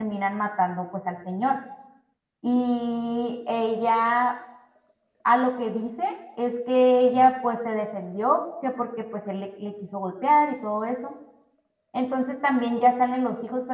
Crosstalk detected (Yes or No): No